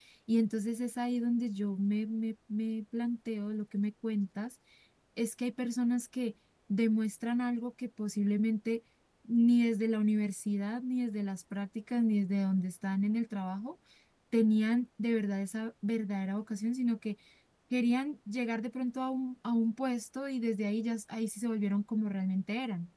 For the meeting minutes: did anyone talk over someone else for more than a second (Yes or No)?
No